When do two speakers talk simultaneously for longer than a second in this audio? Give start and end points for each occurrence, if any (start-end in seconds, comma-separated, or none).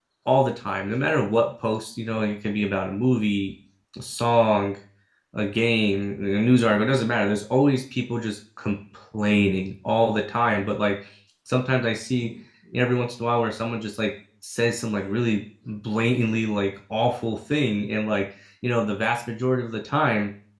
none